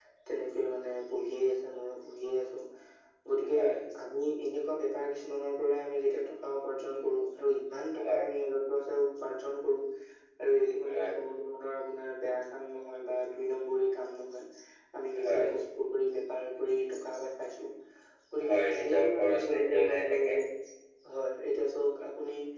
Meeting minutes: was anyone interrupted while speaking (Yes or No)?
Yes